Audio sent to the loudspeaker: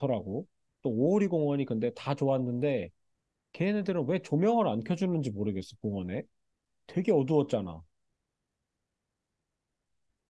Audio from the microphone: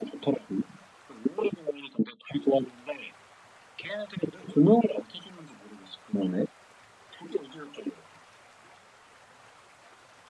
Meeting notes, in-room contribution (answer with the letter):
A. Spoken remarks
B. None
B